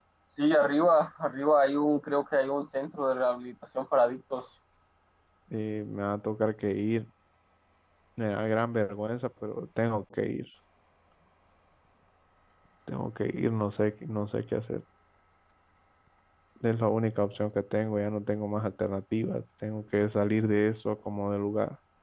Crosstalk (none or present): none